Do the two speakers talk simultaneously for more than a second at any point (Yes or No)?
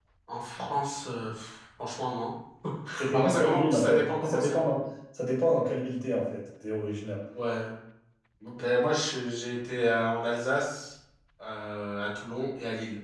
Yes